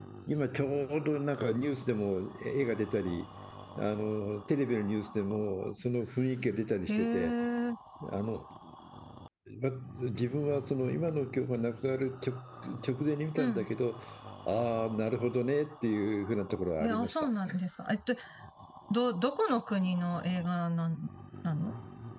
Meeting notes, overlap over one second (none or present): none